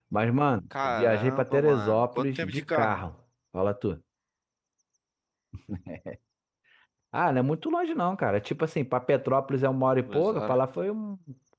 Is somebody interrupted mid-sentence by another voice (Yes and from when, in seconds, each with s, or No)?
Yes, from 0.8 s